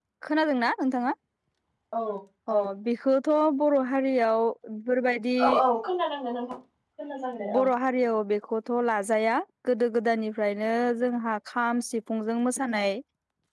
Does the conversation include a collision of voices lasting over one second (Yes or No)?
No